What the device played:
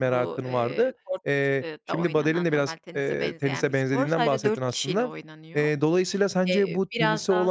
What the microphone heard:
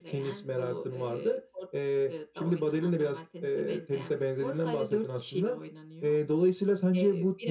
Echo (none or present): present